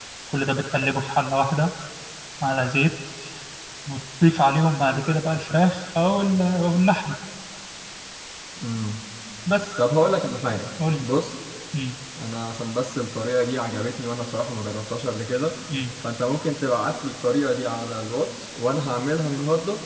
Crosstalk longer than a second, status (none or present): none